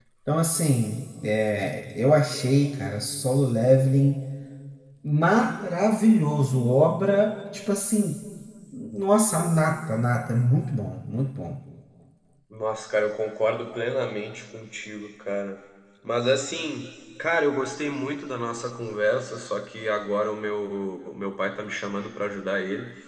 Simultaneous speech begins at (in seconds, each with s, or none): none